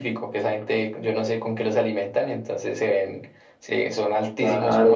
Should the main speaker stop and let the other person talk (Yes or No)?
No